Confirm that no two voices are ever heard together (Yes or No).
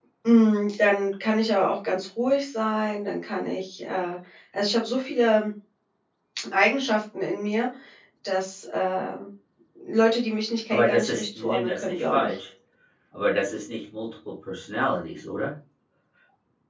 No